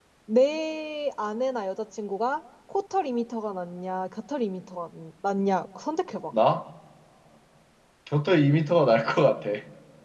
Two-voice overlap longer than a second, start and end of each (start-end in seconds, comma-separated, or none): none